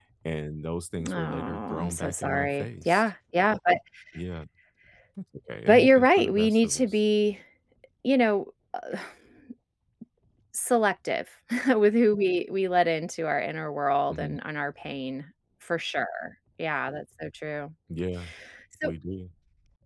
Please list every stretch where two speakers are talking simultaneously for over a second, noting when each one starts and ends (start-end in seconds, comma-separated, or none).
1.1-3.1, 5.7-7.0